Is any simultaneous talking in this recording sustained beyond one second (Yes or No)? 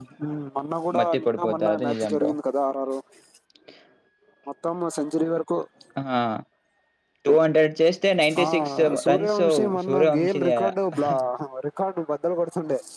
Yes